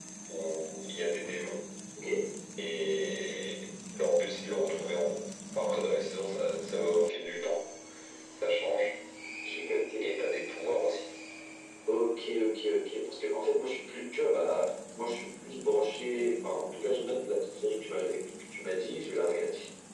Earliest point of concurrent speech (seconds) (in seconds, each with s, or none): none